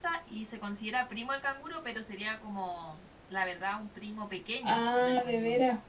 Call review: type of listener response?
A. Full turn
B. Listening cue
A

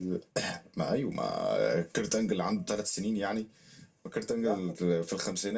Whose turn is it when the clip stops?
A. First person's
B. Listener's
A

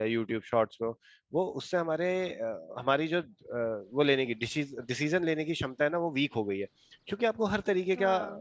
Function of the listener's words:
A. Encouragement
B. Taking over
A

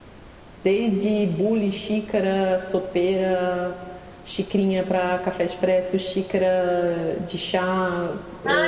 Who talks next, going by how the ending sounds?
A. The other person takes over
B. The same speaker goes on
A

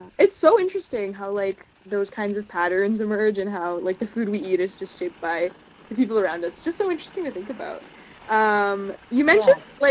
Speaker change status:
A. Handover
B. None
B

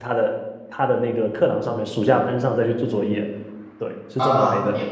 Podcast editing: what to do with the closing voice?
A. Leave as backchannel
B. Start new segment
B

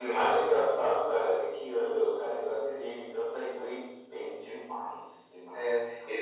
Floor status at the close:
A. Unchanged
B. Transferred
B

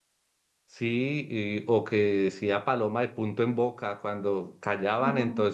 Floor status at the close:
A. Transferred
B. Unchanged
B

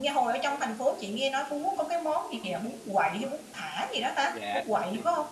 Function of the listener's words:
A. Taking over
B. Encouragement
A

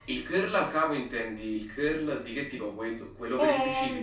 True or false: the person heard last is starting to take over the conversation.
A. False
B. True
B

